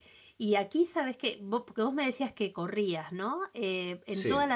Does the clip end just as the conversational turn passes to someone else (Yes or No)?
No